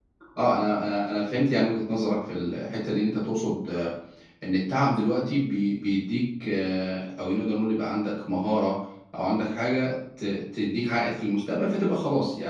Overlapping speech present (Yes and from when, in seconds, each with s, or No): No